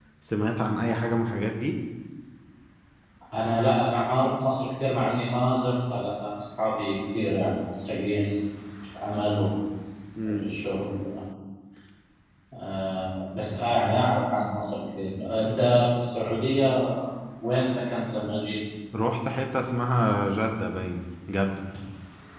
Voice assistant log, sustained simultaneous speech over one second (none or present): none